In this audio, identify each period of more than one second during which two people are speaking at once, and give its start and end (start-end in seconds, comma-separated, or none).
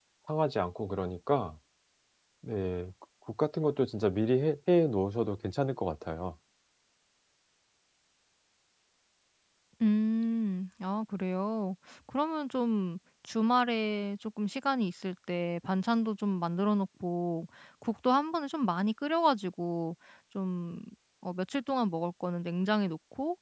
none